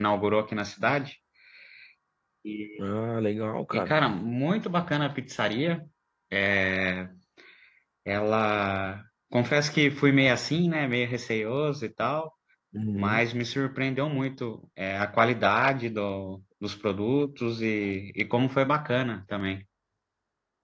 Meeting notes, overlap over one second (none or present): none